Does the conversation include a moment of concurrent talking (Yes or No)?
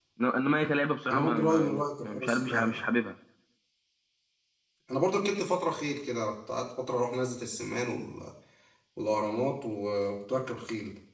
Yes